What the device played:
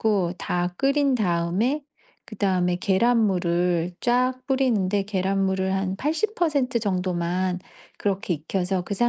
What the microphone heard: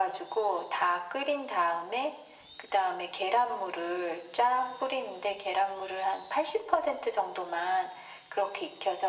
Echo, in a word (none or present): present